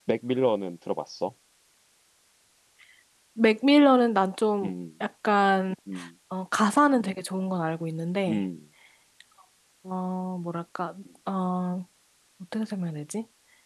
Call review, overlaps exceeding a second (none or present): none